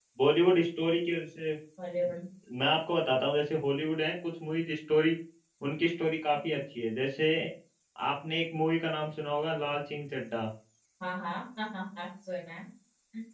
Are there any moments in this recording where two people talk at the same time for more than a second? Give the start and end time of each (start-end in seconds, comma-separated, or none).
none